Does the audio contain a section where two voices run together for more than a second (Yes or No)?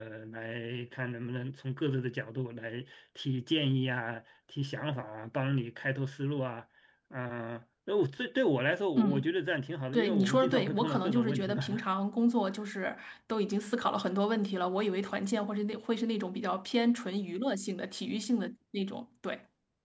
Yes